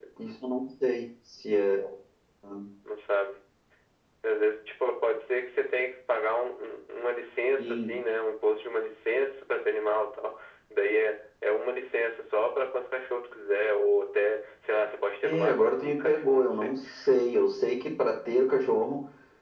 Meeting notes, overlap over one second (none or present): present